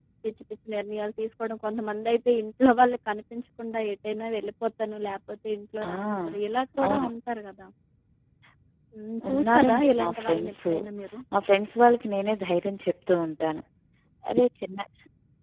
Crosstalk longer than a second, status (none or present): present